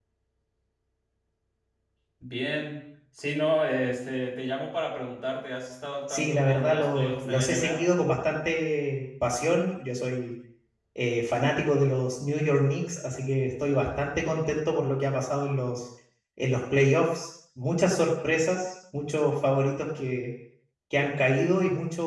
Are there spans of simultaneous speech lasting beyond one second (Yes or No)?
Yes